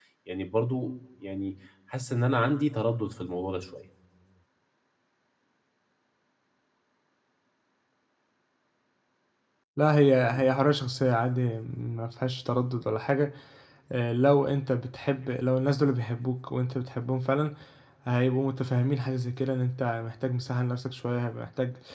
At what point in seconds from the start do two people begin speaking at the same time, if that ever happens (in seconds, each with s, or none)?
none